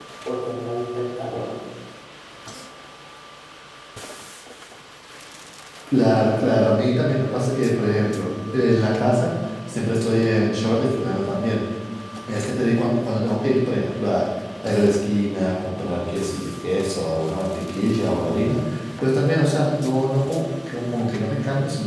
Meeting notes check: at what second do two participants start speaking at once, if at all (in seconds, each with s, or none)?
none